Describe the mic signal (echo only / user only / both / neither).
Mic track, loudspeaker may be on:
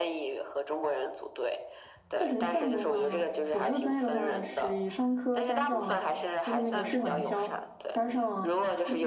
both